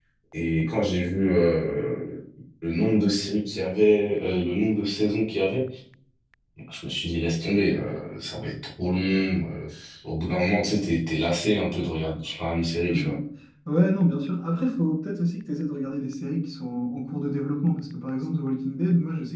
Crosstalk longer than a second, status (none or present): none